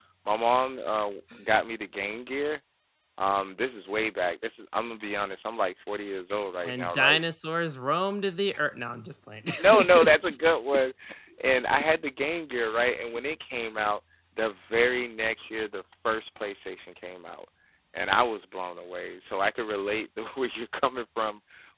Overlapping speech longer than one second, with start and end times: none

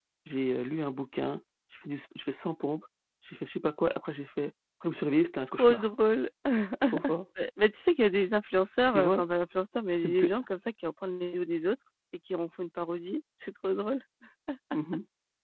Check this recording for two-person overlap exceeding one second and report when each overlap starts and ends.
none

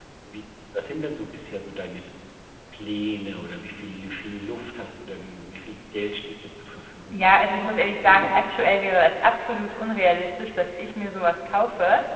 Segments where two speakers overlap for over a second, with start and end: 7.1-8.8

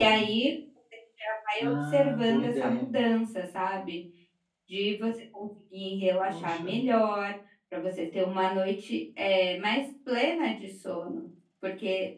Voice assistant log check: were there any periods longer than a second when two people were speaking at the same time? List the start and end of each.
1.6-2.9

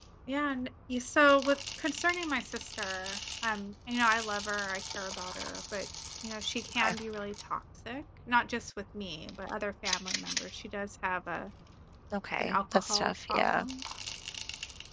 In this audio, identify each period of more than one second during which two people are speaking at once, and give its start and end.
12.4-13.7

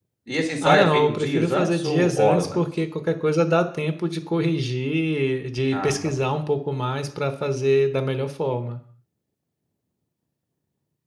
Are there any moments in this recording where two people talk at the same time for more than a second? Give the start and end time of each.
0.6-2.6

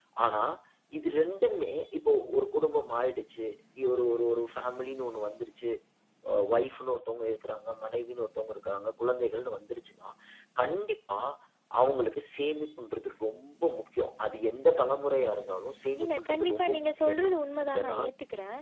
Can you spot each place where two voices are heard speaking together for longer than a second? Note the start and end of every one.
16.0-17.3

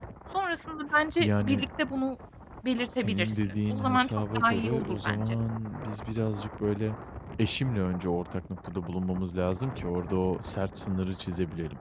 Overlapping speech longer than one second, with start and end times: 3.0-5.4

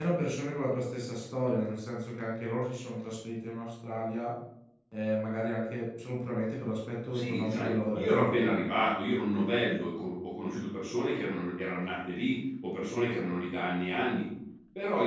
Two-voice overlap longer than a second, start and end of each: 7.1-8.4

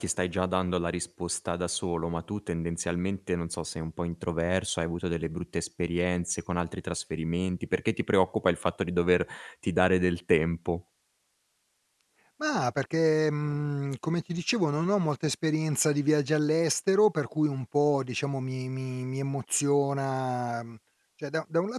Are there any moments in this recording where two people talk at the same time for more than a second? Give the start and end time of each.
none

